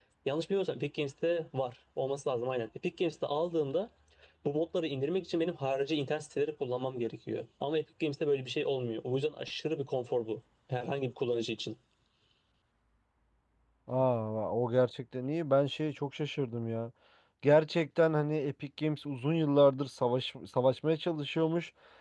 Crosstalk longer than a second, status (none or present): none